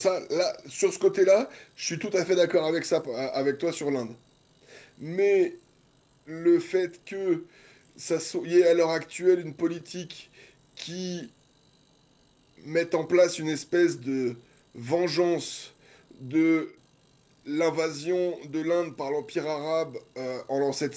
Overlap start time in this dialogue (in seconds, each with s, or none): none